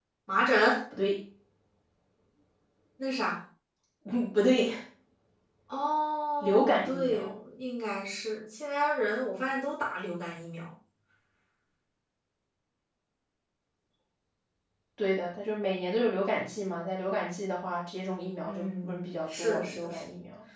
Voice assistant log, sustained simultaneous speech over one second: present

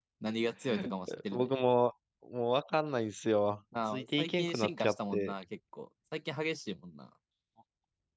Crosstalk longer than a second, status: present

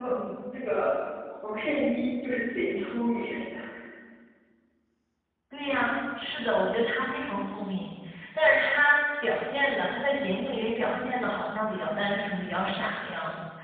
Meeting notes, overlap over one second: none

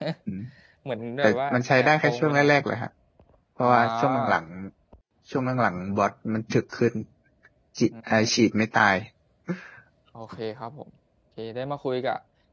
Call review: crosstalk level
present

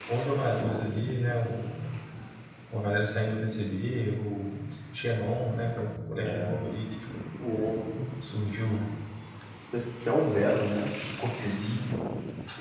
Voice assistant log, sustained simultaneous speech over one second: none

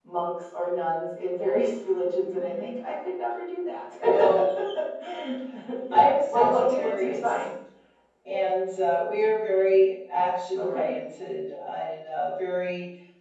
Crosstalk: present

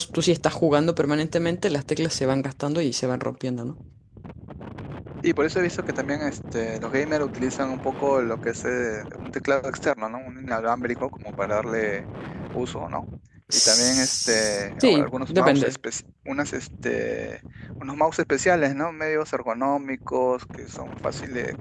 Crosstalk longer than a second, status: present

